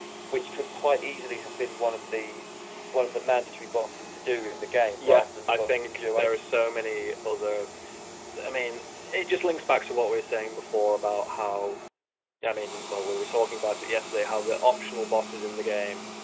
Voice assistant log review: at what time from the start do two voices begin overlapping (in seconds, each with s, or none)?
5.0 s